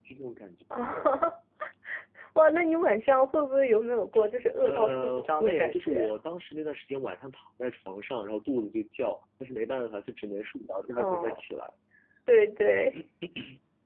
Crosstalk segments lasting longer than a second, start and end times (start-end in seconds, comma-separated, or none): 4.6-6.1